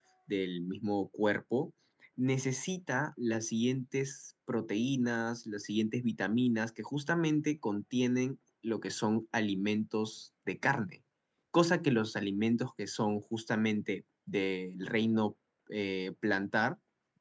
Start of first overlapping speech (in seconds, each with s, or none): none